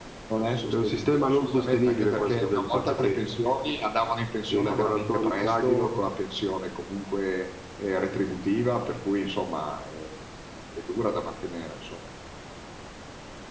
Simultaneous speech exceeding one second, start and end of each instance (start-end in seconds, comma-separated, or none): 0.7-3.2, 4.5-5.9